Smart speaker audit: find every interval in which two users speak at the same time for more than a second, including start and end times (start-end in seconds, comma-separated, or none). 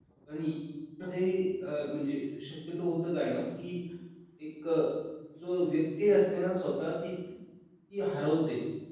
none